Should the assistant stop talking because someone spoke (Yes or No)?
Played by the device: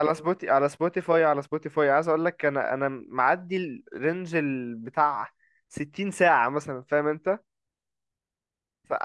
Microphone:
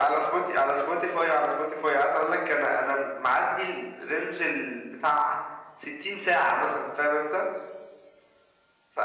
No